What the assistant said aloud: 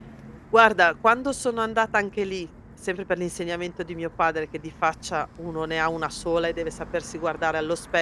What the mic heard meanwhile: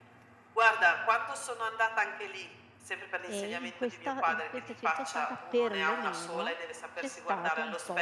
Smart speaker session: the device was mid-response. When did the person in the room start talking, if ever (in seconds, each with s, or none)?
3.2 s